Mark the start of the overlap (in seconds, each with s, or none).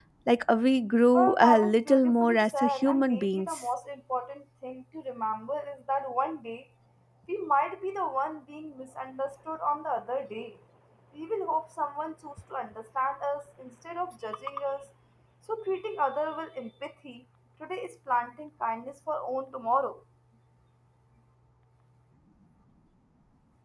1.1 s